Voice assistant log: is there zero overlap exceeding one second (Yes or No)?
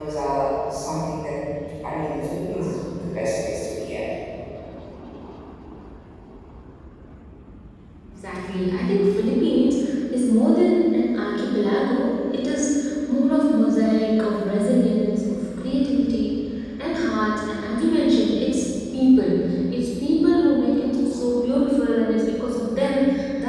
Yes